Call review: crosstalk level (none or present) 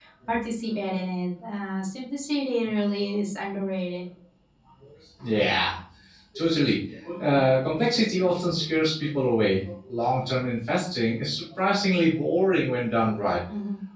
none